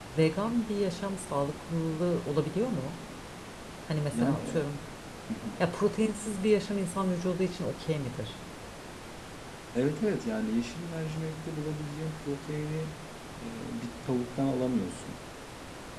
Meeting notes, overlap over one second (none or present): none